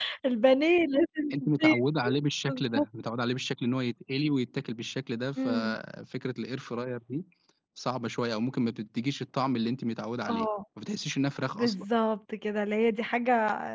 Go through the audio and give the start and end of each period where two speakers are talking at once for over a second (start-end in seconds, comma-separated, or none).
none